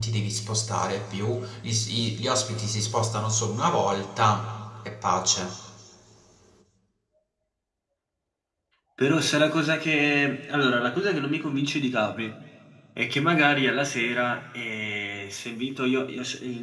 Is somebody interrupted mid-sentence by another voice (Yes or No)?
No